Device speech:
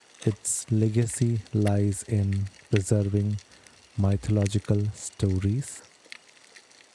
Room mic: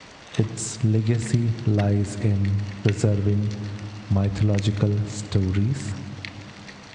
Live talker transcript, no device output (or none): none